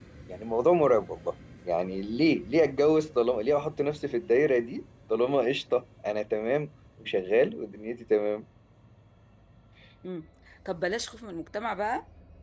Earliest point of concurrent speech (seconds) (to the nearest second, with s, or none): none